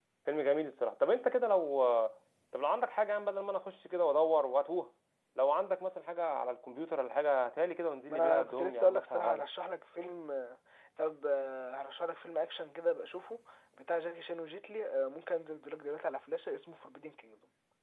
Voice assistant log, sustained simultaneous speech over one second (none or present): present